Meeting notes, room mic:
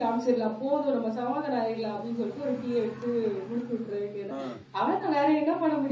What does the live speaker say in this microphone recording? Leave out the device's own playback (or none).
அ.